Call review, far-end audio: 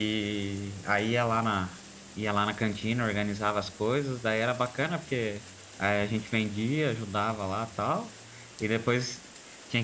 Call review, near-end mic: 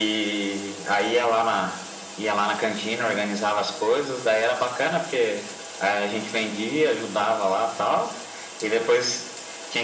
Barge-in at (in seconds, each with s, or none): none